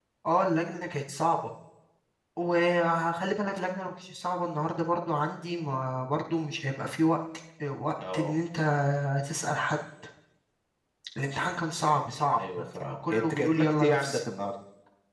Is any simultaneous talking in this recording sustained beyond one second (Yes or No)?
Yes